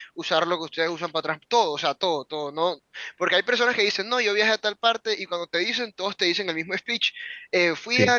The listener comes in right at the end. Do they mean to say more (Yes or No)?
No